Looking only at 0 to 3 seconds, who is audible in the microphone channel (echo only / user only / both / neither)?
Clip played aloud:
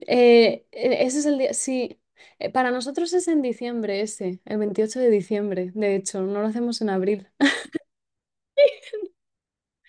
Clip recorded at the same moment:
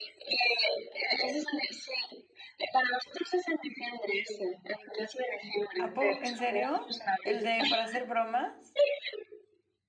echo only